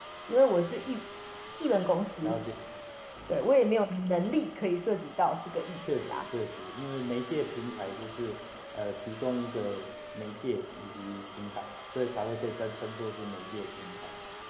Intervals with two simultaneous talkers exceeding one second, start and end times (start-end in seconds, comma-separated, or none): none